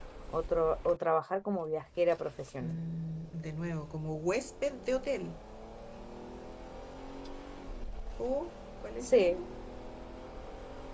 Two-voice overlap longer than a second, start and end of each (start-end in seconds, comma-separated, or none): none